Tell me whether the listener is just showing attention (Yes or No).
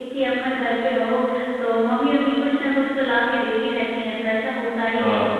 Yes